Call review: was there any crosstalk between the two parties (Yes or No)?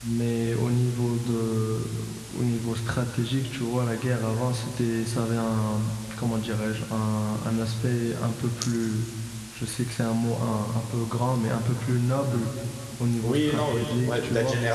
Yes